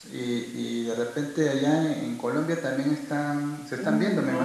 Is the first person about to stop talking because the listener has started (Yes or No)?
Yes